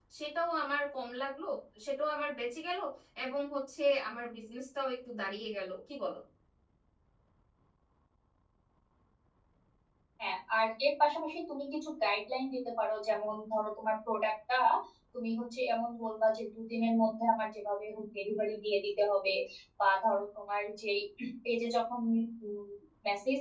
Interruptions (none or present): none